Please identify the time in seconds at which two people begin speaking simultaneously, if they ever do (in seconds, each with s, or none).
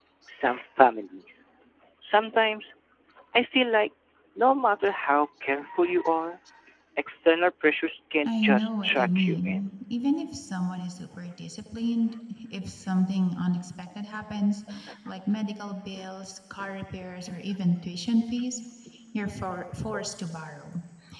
8.2 s